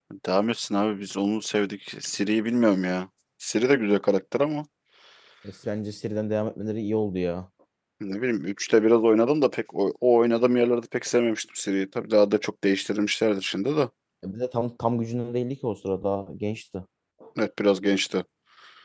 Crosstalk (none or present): none